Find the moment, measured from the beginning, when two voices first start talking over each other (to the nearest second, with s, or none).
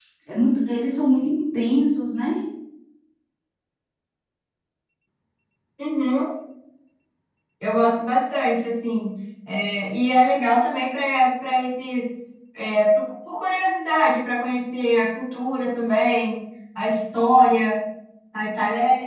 none